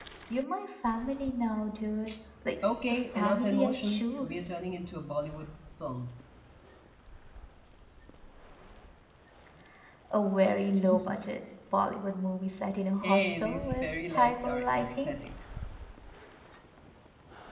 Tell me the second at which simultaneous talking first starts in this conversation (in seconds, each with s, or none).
2.9 s